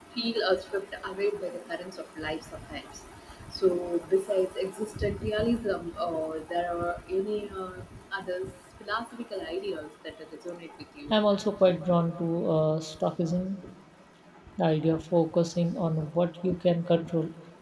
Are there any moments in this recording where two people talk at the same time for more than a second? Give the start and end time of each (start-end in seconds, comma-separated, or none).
none